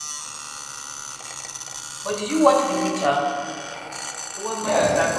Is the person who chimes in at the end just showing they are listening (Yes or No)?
No